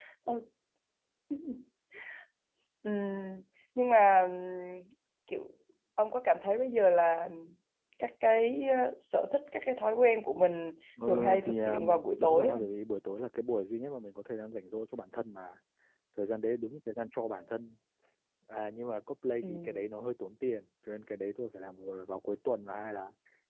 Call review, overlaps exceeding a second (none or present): present